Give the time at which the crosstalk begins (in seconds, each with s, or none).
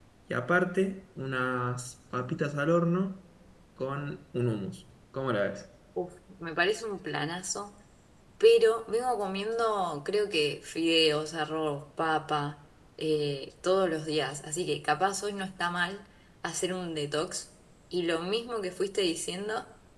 none